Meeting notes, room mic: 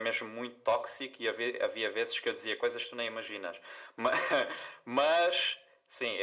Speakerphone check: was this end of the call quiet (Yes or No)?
Yes